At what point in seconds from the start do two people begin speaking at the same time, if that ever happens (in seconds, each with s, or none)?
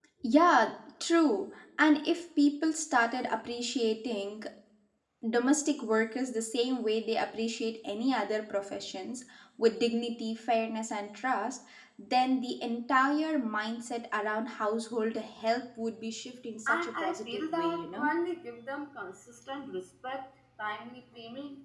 16.7 s